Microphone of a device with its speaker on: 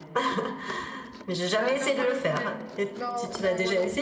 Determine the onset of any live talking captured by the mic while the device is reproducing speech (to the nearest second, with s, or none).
2 s